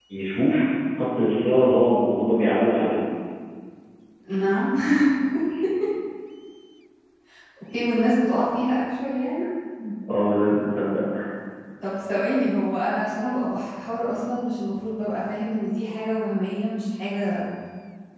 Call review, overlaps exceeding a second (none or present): none